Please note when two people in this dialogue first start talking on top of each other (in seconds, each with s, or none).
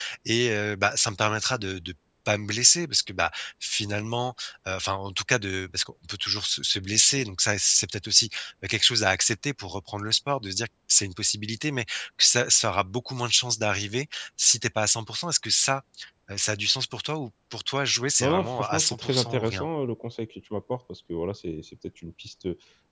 18.2 s